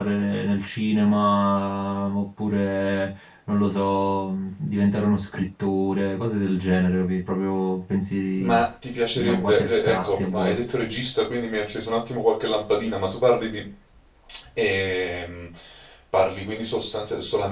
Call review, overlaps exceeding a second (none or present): present